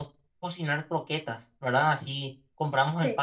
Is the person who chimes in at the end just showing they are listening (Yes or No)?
Yes